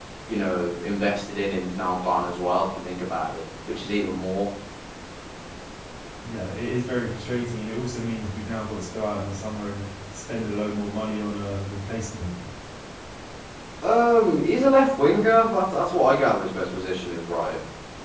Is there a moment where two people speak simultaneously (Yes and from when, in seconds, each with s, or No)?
No